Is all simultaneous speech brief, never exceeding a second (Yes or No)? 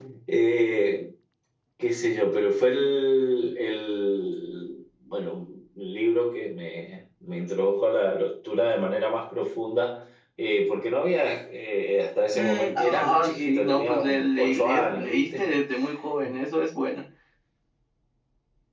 No